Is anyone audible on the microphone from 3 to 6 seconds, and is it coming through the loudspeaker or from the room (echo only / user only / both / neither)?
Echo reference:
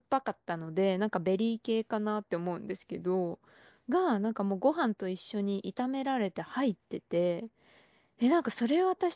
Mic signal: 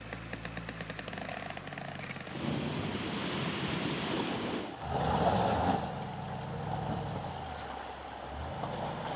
neither